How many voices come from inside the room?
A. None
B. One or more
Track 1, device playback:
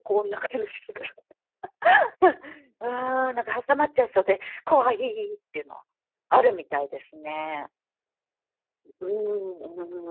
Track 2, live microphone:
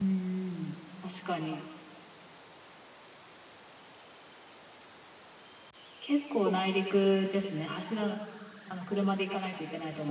B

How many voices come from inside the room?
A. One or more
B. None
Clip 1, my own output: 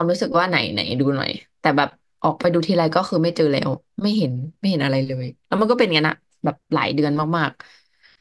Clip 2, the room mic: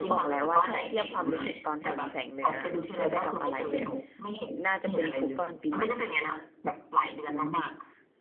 A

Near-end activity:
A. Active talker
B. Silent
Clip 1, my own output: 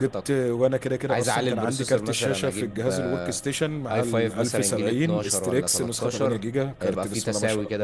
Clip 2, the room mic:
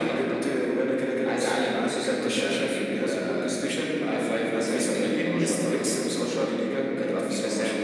B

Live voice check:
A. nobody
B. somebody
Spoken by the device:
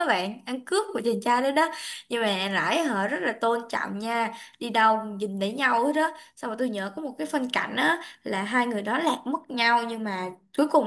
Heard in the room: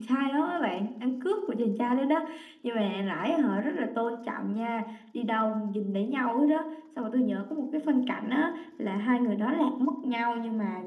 A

